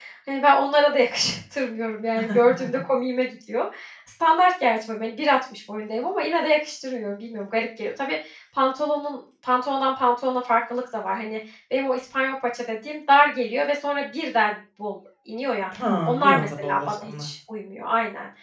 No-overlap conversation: No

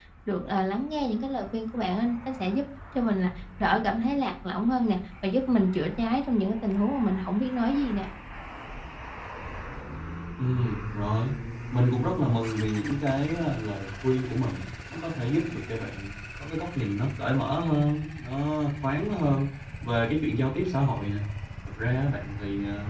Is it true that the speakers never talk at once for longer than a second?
Yes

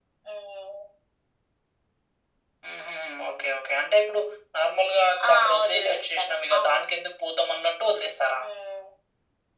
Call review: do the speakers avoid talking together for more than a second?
No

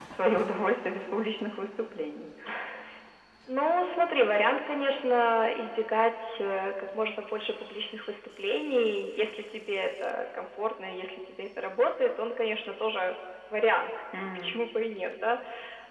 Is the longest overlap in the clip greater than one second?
No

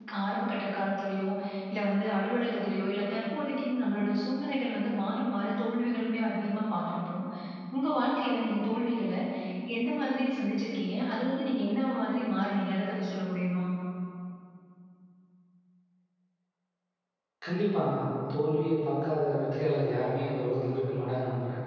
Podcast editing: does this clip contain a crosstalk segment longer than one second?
No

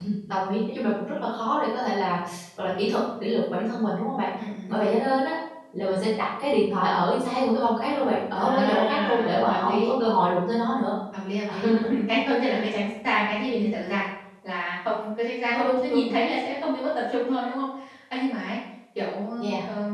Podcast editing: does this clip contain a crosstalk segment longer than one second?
Yes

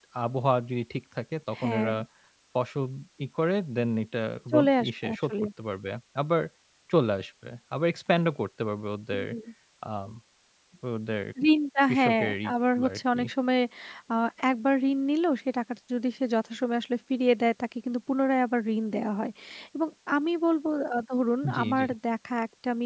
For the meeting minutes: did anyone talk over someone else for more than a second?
Yes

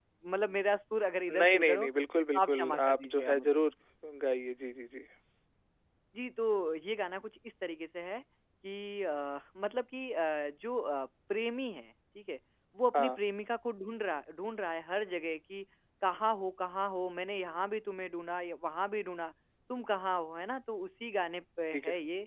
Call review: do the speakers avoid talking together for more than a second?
No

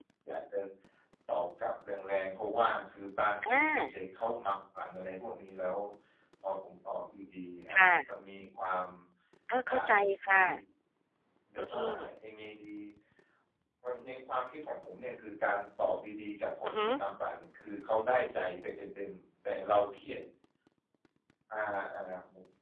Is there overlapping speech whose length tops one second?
No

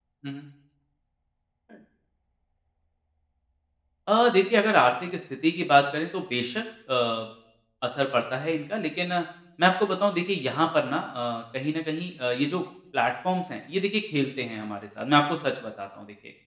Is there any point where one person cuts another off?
No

